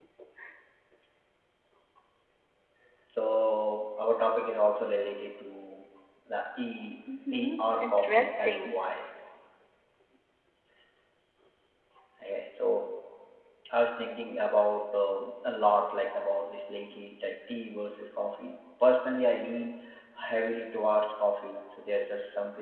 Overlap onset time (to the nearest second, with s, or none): 7 s